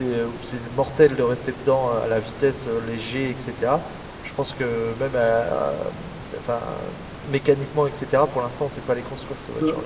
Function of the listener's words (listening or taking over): taking over